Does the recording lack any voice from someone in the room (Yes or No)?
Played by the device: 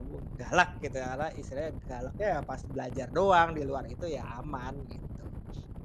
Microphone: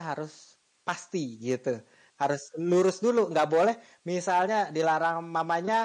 No